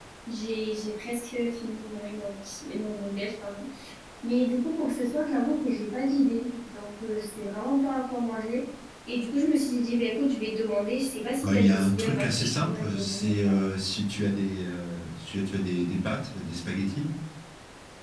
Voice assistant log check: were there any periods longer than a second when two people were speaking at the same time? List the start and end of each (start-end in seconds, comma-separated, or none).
11.5-13.6